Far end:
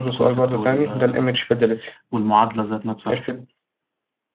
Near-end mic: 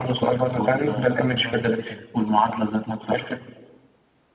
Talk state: both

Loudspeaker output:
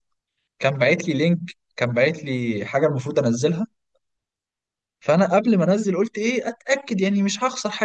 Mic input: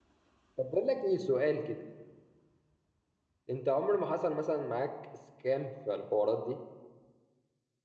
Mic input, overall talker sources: user only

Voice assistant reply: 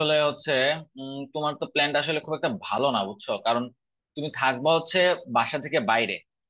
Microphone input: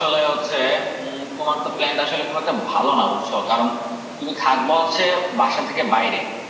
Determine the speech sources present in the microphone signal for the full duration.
echo only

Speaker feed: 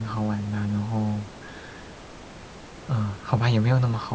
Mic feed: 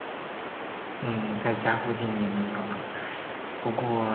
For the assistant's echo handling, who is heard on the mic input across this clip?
user only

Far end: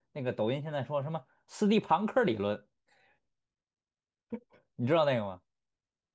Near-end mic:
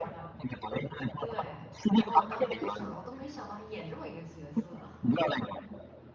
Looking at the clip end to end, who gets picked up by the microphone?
both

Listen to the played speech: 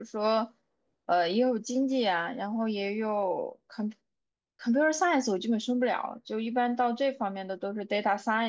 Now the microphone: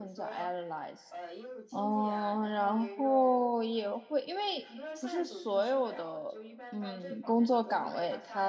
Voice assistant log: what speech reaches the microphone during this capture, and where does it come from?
both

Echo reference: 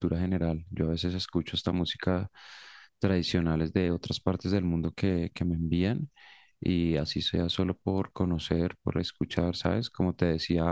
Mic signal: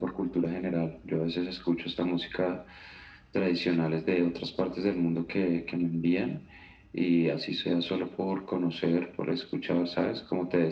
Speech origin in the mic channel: echo only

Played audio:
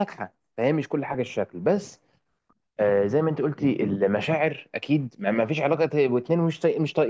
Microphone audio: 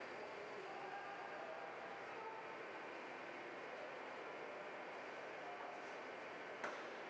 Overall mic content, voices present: neither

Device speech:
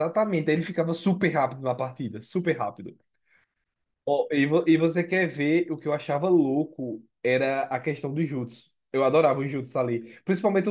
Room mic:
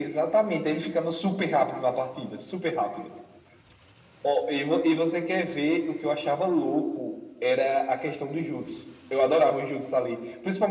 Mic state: echo only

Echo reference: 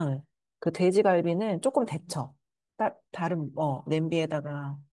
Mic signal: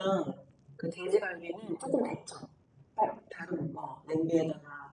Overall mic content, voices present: echo only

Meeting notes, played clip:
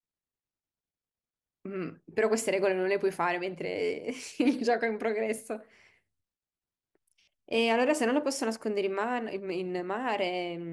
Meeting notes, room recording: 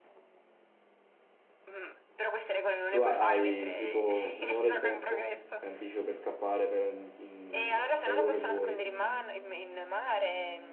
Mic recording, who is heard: both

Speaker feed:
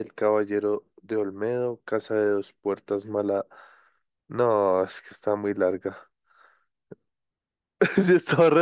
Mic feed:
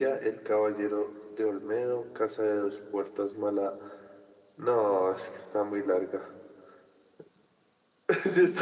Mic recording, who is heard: echo only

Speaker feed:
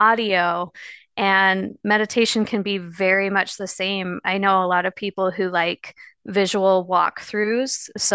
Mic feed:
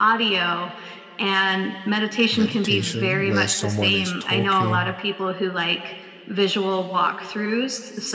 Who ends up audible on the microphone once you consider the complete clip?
both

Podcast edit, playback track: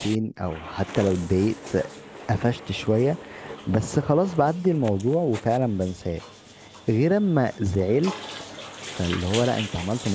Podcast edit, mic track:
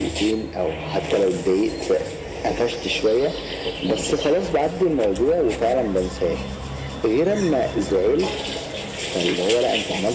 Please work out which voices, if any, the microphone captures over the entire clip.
echo only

